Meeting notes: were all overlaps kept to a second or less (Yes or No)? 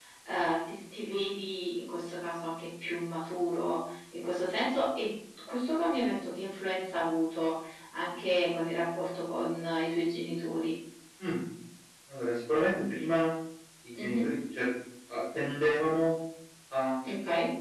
Yes